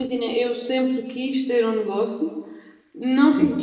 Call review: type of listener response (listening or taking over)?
listening